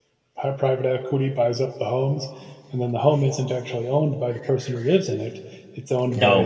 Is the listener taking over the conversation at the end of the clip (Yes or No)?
No